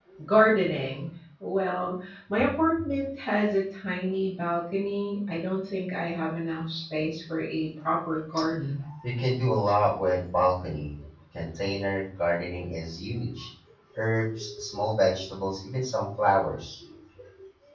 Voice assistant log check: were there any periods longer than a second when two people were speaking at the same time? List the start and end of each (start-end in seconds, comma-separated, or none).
none